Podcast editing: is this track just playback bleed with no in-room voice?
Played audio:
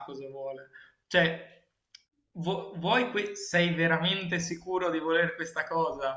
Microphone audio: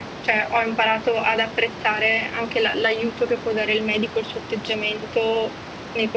No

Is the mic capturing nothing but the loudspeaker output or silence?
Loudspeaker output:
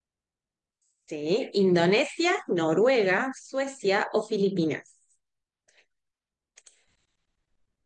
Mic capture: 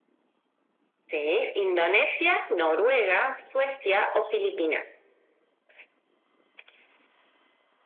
Yes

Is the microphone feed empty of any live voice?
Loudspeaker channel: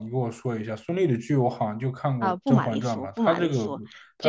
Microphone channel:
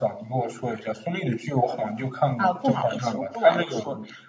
Yes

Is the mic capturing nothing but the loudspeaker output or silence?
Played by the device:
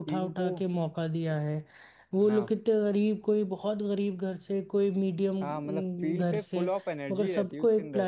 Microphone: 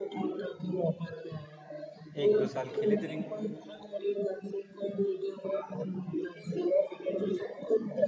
No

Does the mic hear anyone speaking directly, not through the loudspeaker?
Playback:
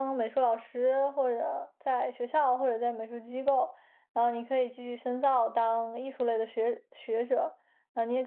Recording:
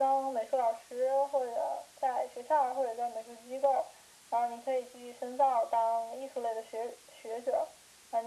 No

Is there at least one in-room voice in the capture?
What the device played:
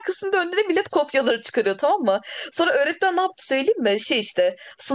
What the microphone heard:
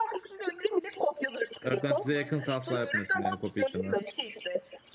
Yes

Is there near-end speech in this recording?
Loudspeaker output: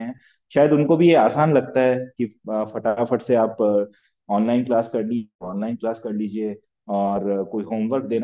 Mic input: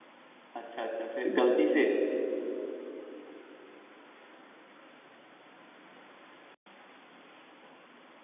Yes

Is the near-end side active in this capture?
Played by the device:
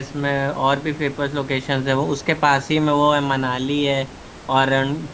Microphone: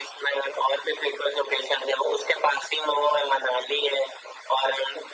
No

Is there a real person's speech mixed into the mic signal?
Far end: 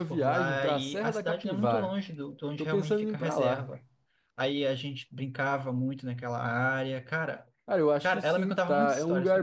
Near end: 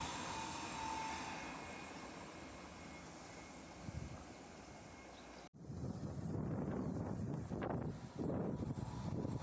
No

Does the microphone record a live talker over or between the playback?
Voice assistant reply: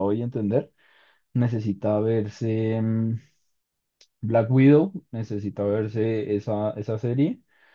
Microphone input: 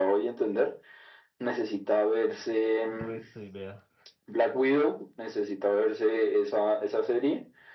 Yes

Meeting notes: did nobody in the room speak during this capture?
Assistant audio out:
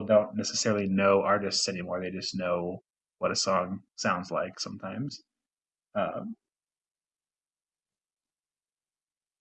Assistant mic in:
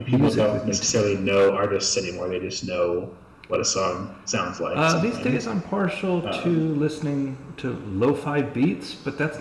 No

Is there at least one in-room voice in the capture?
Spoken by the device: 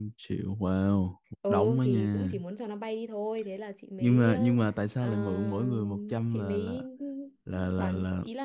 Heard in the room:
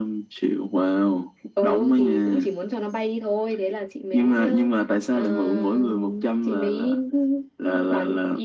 No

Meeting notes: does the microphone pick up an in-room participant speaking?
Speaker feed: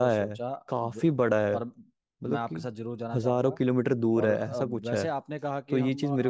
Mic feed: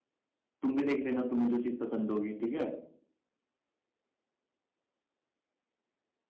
Yes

